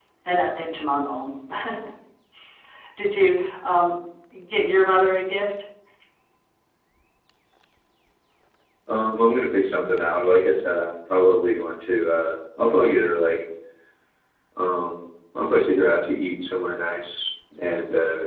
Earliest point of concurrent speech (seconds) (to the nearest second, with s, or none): none